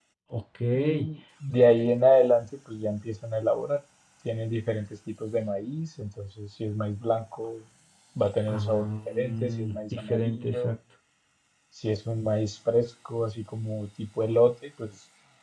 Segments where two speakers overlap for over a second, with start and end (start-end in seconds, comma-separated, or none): 8.5-10.7